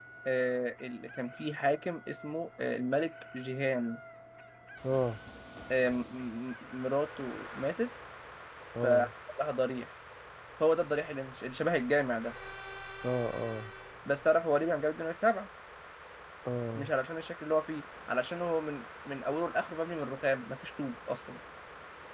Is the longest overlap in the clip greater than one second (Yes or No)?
No